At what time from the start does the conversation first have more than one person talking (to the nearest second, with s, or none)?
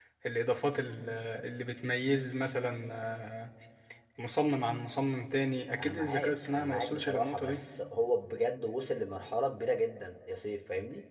6 s